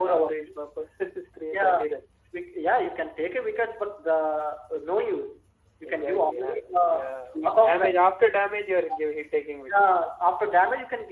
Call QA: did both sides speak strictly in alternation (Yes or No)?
No